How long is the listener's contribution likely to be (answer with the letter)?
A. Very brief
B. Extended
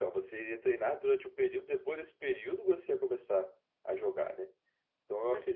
A